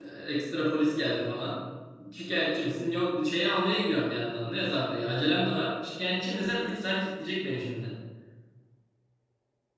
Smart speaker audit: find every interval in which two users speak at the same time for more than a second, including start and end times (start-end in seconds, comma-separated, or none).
none